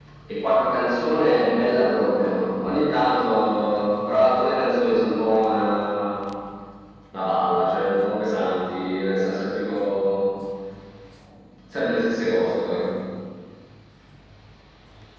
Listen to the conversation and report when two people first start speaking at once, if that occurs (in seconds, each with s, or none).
none